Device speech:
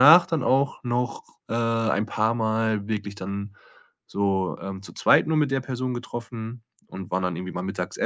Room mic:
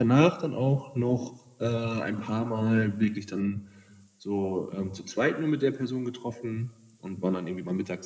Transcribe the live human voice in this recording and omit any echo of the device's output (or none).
none